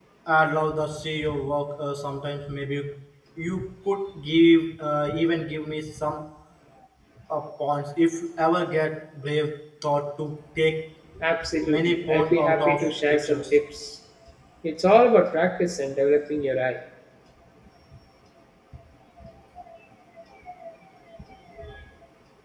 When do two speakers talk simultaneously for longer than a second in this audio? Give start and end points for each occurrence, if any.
11.7-13.4

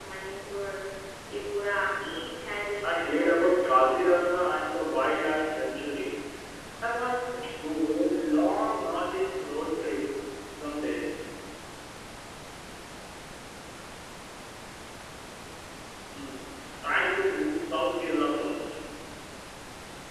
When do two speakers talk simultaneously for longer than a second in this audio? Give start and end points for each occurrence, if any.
2.8-4.3

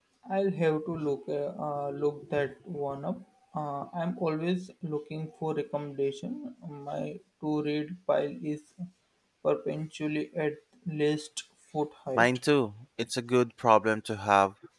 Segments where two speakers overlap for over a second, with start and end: none

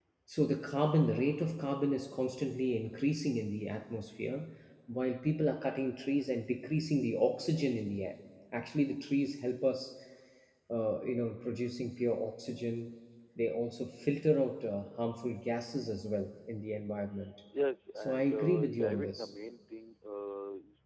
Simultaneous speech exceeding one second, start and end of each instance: 18.0-19.3

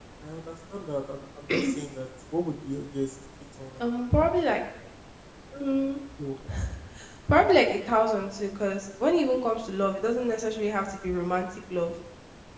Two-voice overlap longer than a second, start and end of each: none

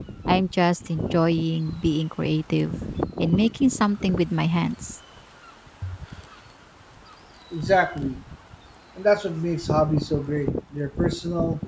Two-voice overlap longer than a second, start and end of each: none

